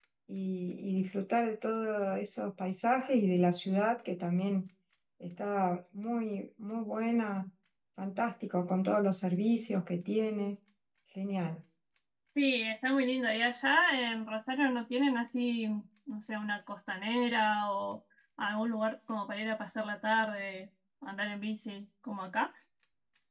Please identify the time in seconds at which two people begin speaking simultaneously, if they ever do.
none

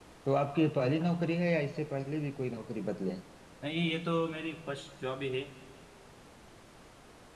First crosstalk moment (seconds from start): none

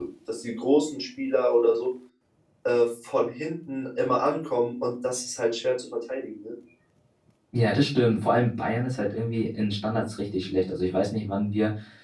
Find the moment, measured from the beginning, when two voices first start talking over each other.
none

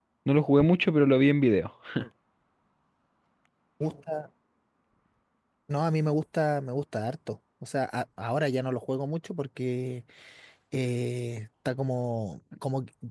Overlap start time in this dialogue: none

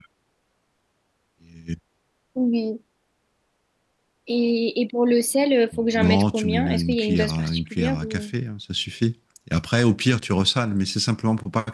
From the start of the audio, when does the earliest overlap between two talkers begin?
6 s

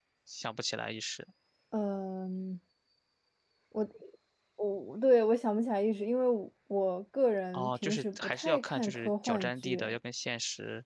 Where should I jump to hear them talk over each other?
8 s

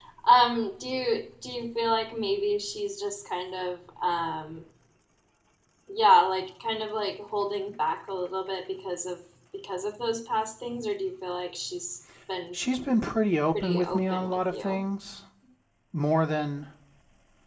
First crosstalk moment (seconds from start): 14 s

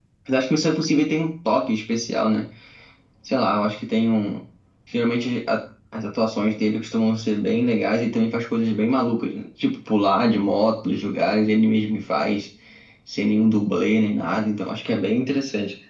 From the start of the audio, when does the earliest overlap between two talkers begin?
none

